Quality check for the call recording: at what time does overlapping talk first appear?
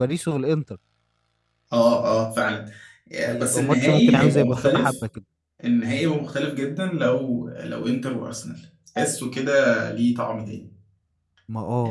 3.3 s

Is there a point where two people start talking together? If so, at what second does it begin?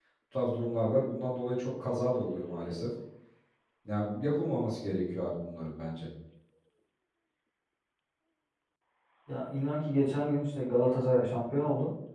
none

